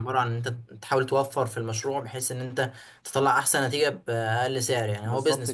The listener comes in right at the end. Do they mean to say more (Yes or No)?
Yes